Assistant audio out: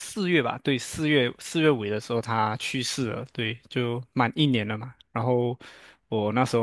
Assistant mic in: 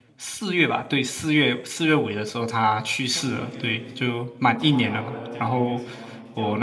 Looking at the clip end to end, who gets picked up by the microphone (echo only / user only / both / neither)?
both